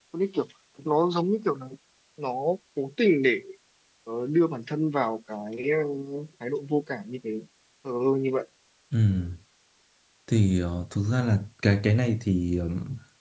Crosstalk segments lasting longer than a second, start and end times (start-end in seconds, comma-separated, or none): none